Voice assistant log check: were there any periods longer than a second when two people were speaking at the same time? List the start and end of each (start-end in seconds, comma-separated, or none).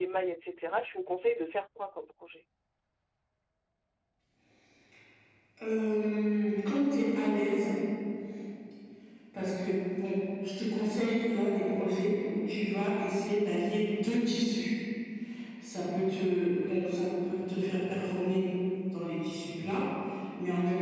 none